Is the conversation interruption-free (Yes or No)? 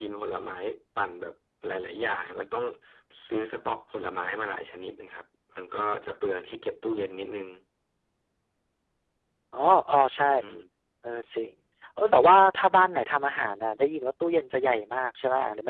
Yes